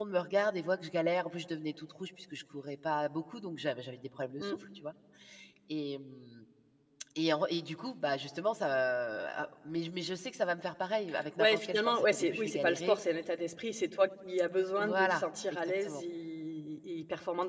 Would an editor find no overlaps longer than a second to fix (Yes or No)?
No